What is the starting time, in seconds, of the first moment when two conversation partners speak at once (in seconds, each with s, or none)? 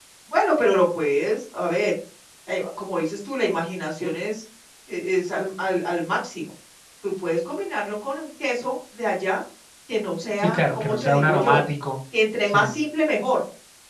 10.4 s